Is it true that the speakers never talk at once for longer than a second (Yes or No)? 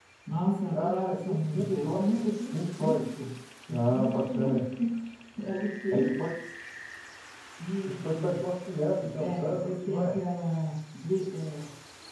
No